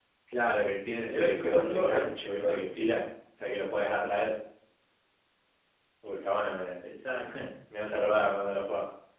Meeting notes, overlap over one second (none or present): present